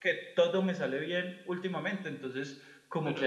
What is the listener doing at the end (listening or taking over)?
taking over